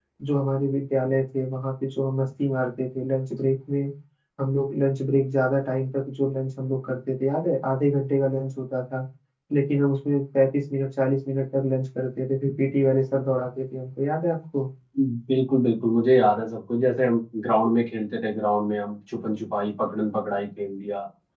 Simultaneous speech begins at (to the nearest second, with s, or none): none